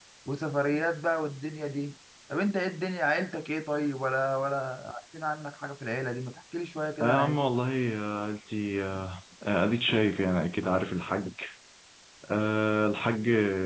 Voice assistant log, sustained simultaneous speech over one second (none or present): none